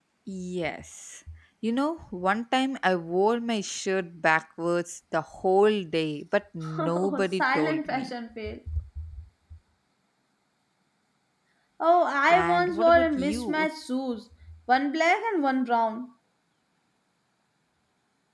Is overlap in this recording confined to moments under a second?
No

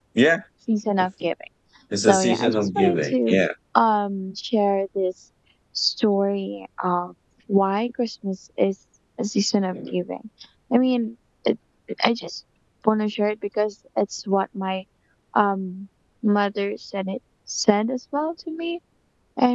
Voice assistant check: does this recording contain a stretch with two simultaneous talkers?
Yes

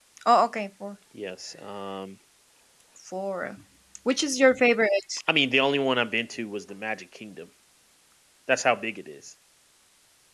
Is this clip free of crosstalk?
Yes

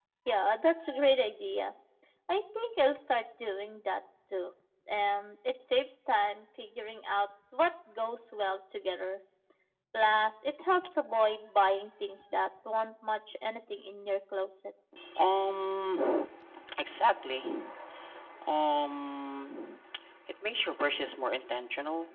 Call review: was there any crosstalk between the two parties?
No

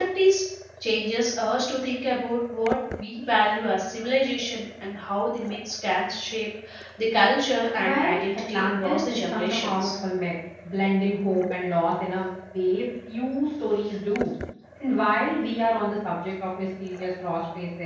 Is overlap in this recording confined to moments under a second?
No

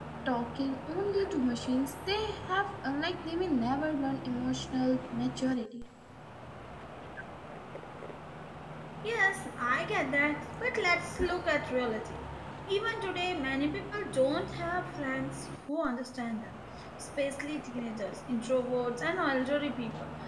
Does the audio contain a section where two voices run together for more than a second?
No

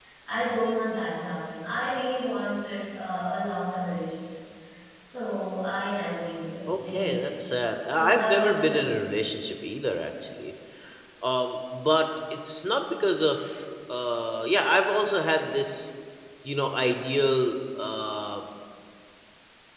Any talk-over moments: Yes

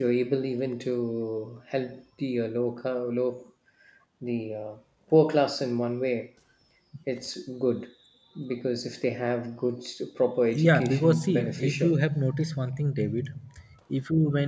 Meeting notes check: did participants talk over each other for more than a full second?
Yes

